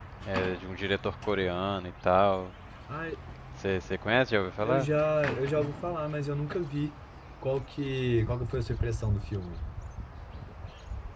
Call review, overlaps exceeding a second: none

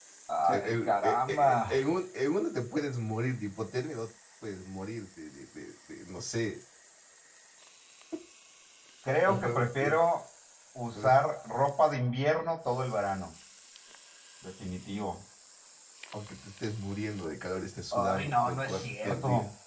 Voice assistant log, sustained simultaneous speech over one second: present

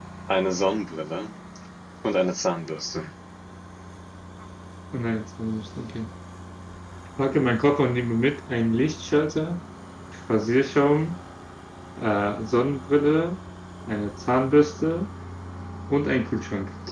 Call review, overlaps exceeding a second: none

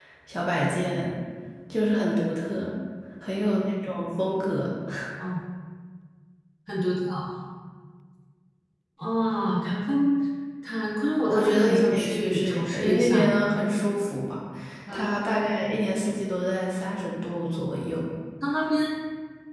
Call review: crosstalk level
present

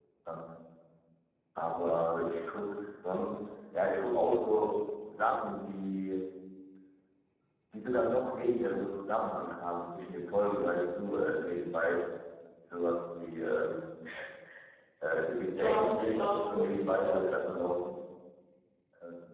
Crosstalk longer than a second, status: present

